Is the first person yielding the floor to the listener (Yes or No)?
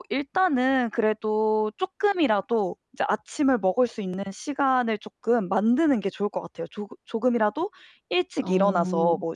No